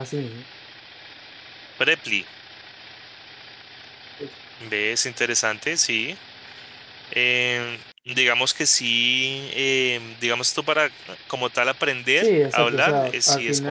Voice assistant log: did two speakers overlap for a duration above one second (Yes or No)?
Yes